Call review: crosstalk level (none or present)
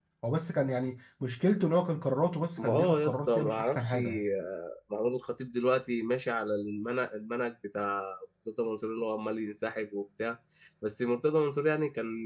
present